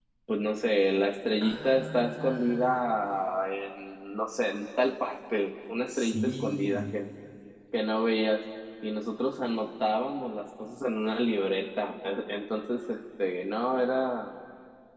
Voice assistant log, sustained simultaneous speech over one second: present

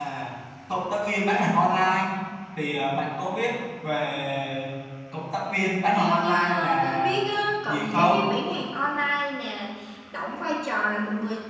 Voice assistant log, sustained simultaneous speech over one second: present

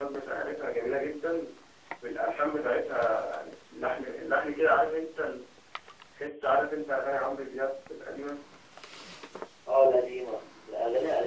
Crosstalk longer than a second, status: none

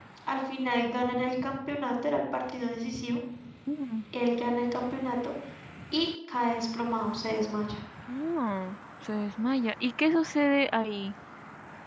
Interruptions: none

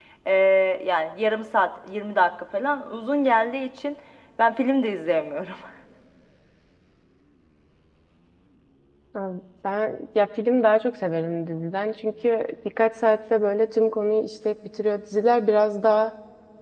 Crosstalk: none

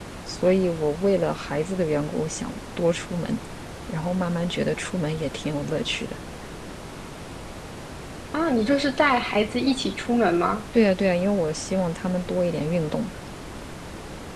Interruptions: none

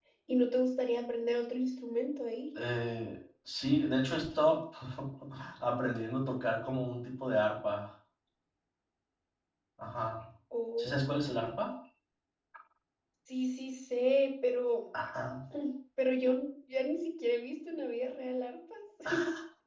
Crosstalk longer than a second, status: none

